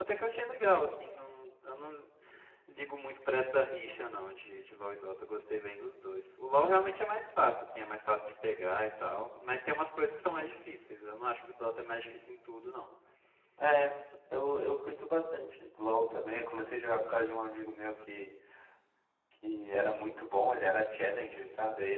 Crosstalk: none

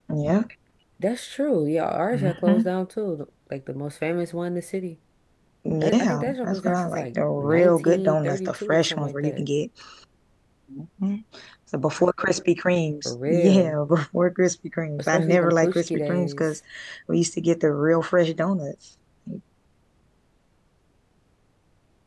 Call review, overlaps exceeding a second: present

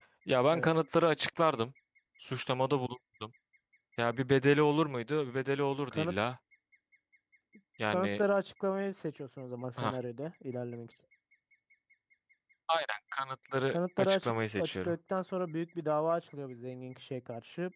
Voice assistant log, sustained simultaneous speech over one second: present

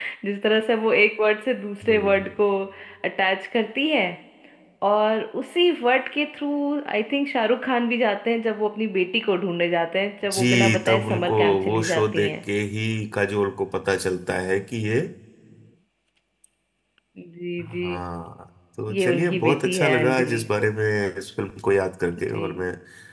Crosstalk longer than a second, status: present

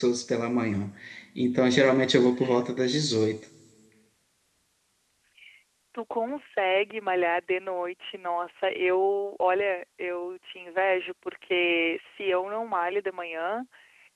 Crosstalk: none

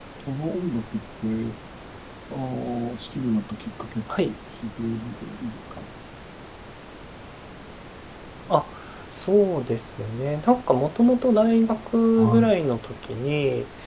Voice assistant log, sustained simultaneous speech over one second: none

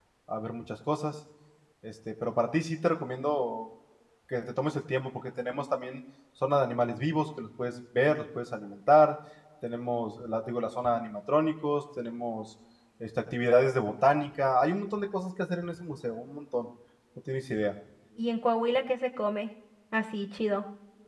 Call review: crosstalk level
none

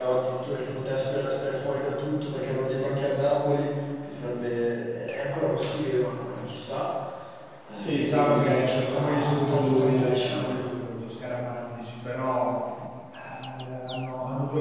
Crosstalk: present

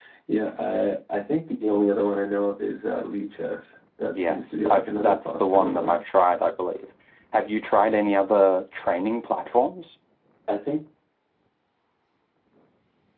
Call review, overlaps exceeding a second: present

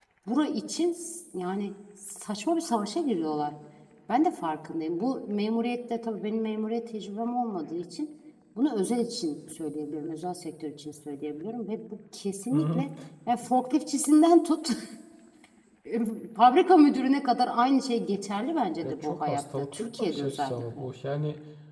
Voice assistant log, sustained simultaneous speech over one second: present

